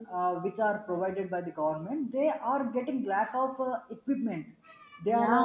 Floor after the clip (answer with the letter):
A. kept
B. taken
A